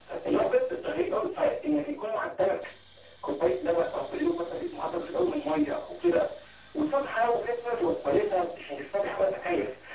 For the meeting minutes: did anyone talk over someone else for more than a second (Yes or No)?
No